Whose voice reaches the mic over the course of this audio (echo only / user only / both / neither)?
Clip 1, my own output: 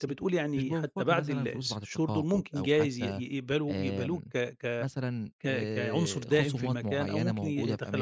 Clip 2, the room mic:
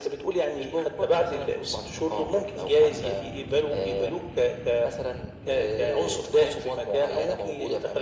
echo only